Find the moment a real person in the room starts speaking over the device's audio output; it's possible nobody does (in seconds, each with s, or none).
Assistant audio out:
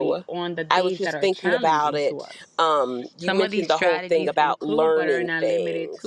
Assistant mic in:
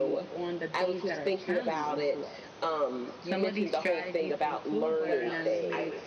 5.0 s